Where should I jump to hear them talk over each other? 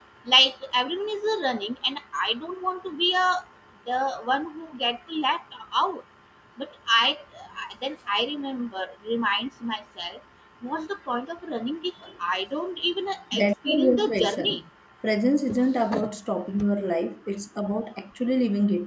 13.3 s

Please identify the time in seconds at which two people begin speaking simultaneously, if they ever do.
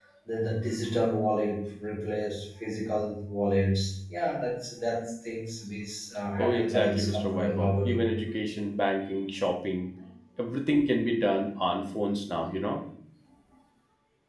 6.4 s

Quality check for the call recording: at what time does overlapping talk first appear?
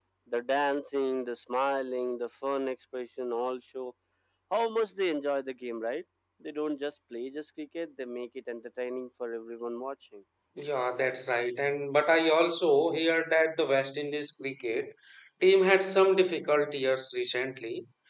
none

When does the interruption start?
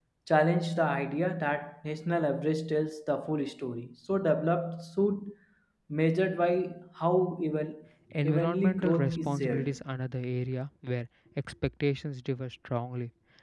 8.2 s

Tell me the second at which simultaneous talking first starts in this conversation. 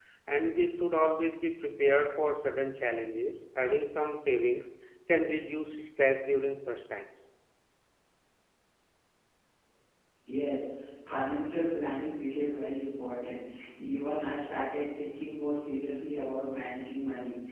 none

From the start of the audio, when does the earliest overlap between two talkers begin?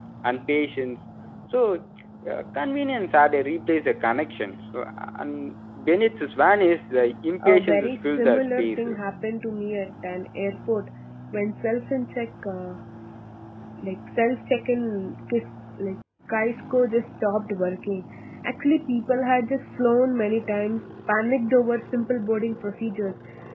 7.4 s

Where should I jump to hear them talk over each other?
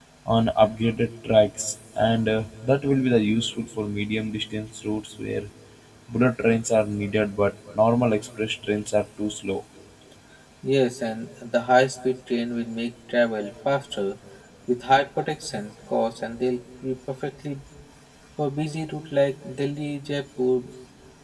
none

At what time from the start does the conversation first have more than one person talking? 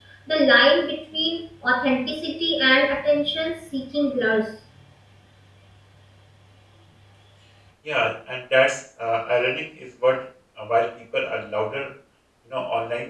none

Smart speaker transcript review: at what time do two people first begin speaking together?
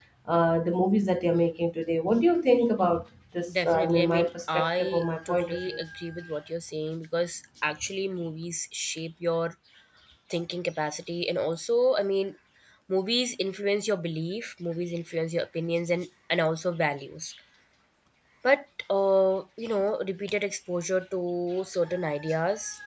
3.5 s

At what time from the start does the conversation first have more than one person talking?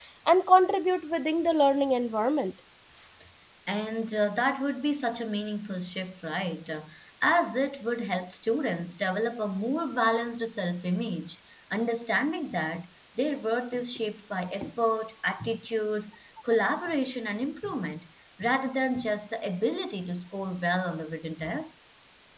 none

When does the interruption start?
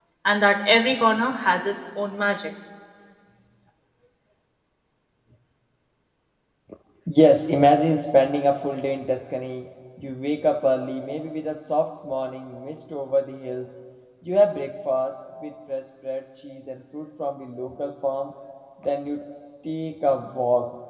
none

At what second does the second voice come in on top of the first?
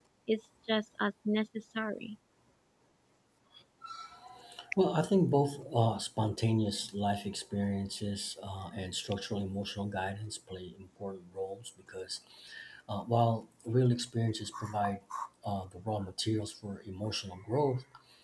none

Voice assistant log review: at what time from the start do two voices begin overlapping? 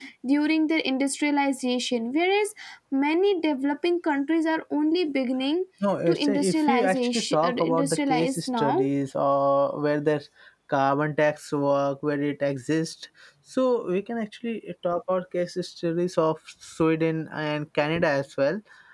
6.1 s

